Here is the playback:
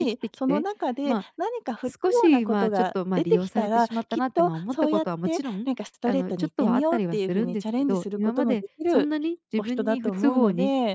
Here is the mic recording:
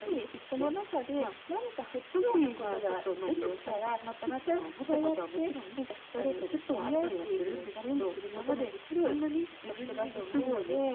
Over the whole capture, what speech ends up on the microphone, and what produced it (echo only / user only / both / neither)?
echo only